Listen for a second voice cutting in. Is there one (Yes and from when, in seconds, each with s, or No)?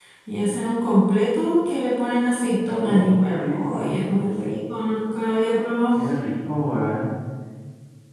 Yes, from 2.7 s